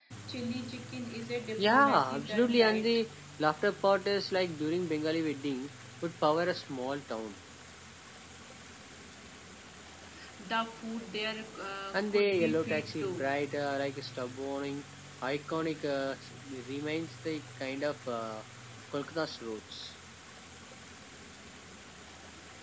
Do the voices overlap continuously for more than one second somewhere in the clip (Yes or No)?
Yes